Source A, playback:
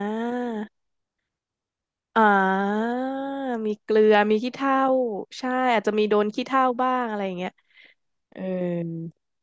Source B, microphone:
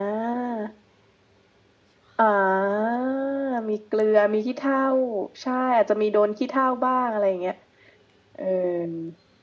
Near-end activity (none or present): none